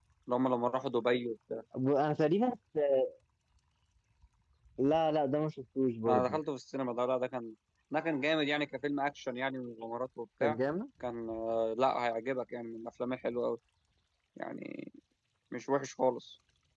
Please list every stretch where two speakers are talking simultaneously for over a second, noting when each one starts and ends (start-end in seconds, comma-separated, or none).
none